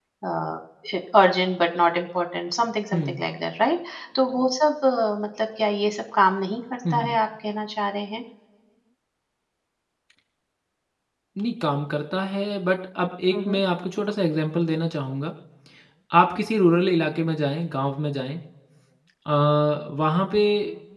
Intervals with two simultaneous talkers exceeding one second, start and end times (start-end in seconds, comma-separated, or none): none